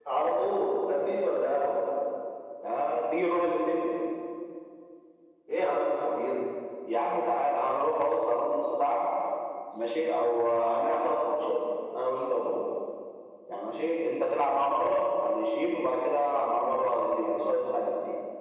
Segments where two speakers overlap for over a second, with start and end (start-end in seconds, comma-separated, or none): none